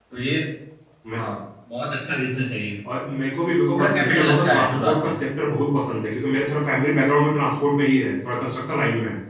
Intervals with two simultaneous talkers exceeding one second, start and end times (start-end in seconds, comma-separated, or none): 3.7-5.1